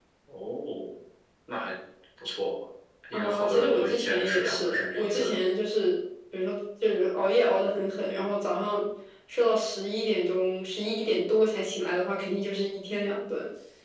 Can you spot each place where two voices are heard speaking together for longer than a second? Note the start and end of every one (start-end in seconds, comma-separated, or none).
3.1-5.3